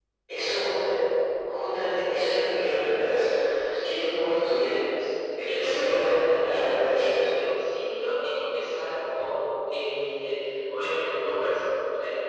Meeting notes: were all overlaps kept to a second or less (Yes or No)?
No